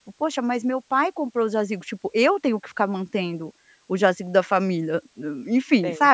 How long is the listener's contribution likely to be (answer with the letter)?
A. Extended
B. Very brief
A